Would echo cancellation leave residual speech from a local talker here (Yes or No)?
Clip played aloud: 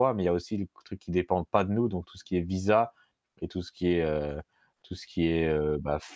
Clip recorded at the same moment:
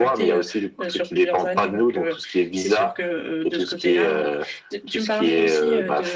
Yes